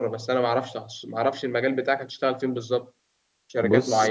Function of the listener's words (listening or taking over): listening